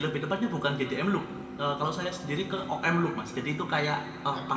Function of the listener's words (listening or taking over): listening